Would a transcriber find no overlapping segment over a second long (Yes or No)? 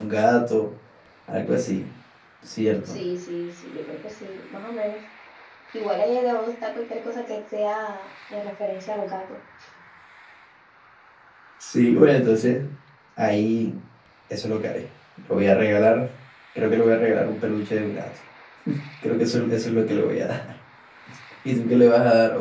Yes